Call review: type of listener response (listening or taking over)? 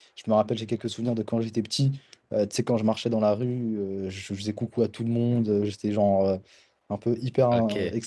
listening